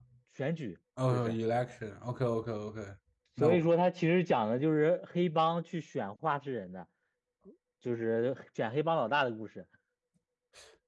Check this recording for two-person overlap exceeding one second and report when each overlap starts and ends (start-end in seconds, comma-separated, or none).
none